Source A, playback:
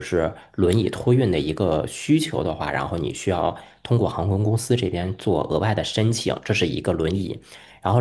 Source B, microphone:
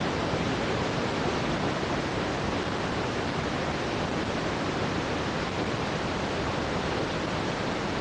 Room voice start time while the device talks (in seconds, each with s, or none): none